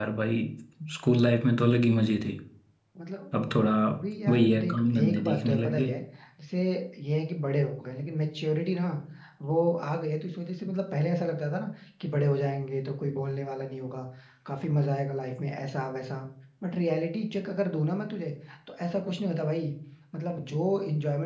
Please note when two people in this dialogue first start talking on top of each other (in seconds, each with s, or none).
4.3 s